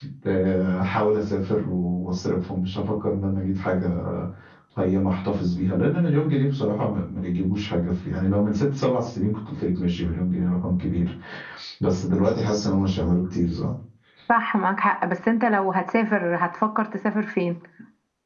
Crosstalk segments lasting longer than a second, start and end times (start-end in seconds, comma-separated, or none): none